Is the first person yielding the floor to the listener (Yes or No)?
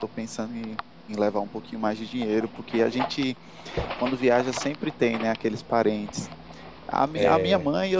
No